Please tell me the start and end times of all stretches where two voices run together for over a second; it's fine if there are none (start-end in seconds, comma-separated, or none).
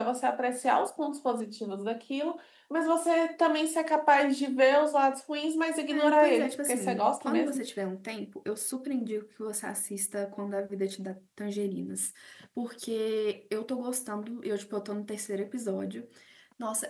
5.9-7.6